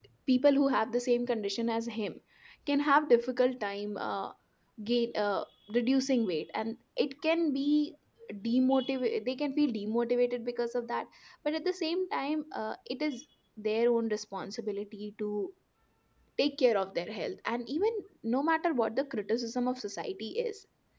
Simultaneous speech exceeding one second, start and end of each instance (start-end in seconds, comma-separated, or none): none